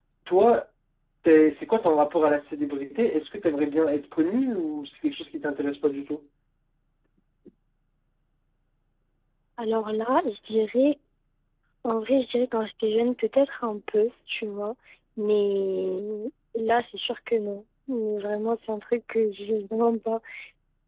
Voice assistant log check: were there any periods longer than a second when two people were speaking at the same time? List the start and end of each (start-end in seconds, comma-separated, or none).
none